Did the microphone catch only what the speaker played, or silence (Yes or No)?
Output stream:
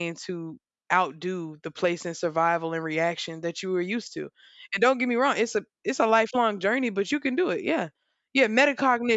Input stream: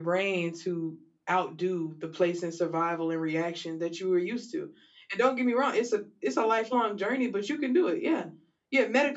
Yes